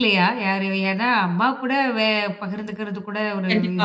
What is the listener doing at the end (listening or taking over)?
taking over